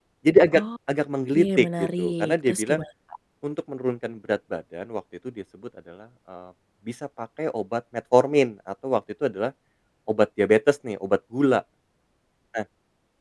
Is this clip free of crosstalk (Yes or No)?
No